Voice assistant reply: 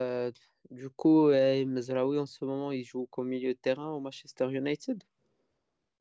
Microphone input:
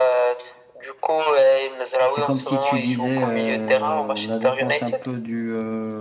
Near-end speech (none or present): present